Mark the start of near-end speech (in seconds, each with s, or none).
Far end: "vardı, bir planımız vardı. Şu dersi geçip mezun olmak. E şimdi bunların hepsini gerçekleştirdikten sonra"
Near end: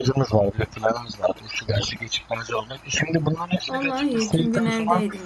3.7 s